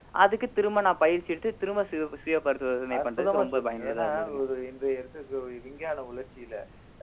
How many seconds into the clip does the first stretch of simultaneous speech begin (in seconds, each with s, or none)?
2.9 s